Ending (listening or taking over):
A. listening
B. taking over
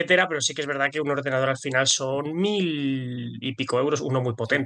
B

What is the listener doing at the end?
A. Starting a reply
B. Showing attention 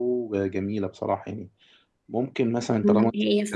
A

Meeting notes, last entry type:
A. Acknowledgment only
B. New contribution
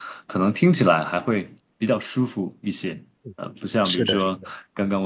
A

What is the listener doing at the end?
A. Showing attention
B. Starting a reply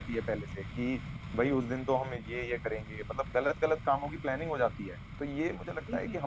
A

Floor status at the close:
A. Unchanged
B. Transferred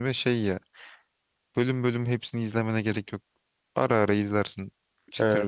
B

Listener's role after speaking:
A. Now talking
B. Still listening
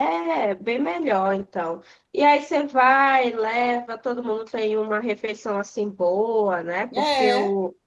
B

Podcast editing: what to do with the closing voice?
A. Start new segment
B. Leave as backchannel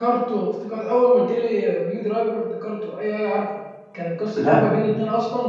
B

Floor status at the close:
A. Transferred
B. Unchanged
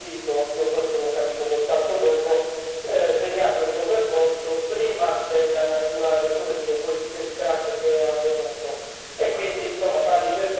B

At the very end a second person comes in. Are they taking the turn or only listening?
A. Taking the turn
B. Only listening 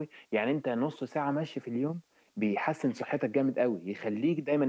B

